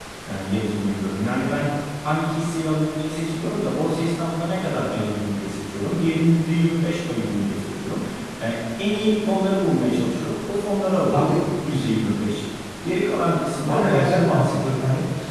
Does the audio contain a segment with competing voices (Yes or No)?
Yes